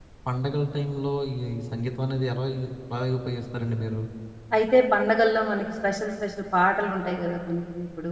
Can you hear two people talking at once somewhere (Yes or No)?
No